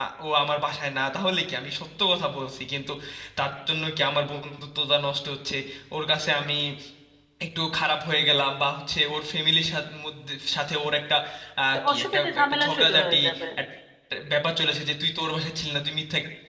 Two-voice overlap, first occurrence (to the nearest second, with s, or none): 12 s